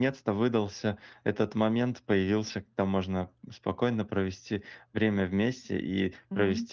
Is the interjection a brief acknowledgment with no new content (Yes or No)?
Yes